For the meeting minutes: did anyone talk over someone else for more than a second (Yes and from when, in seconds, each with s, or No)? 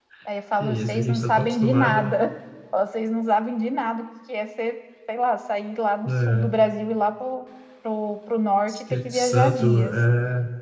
Yes, from 0.6 s